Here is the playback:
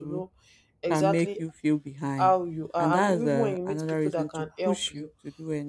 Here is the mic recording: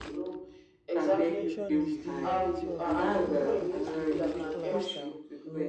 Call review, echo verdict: present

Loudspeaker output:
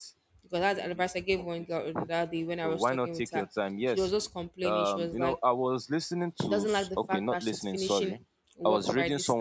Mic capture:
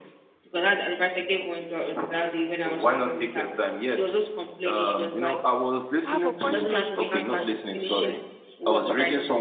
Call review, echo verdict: present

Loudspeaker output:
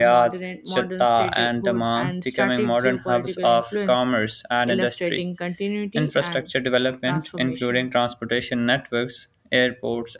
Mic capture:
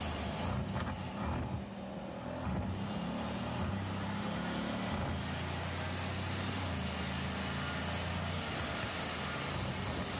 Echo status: none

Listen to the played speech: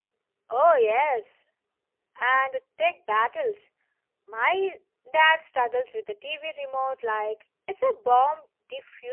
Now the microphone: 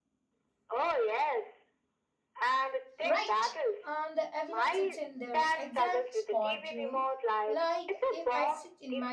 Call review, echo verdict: present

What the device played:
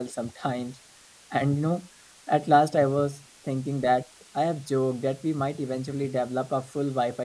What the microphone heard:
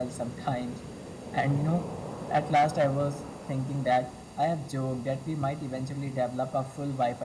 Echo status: present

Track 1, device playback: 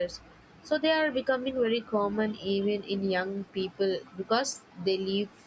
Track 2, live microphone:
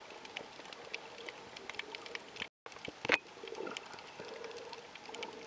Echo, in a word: none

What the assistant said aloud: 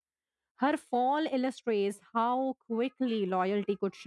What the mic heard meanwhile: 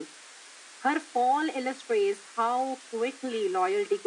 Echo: present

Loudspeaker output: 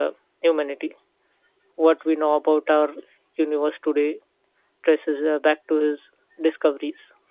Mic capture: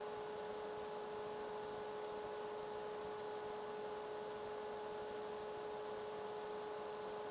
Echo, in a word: none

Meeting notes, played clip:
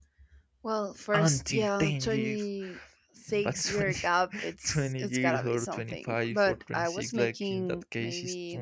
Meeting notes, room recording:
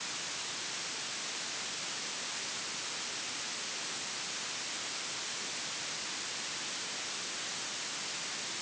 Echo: none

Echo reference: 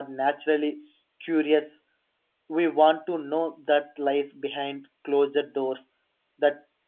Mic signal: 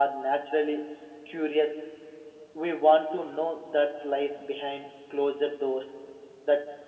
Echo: present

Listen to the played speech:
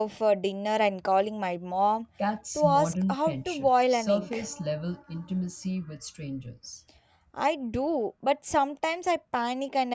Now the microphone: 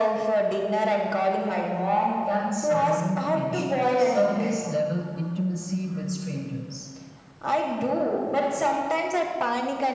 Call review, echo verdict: present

